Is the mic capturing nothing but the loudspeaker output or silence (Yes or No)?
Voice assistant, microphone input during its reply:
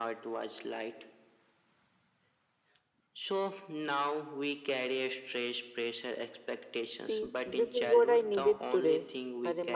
No